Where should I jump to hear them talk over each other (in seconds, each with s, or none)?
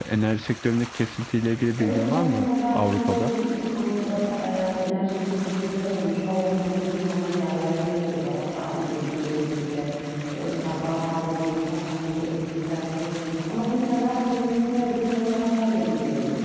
1.8 s